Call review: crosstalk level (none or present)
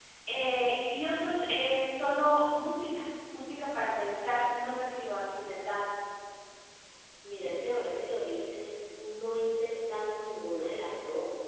none